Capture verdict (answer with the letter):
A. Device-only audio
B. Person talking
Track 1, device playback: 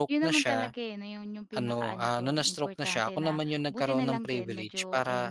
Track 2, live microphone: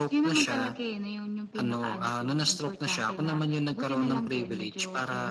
A